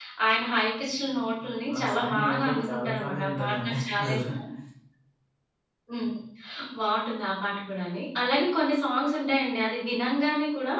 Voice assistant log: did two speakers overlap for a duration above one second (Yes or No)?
Yes